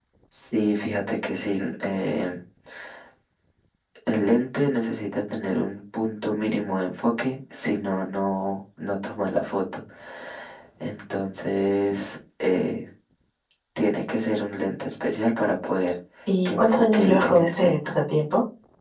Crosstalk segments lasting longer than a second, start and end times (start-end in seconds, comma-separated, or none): 16.4-17.7